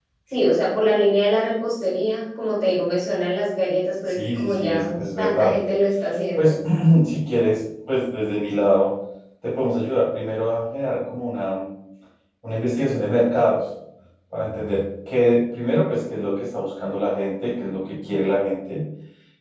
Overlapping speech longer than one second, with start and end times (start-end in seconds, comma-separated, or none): 4.1-5.6